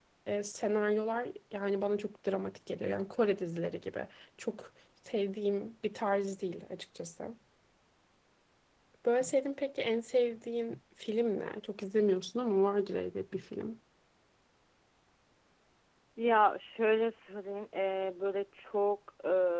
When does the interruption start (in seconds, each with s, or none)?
none